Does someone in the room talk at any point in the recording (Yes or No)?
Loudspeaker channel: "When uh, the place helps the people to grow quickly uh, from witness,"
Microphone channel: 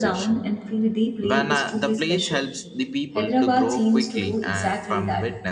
Yes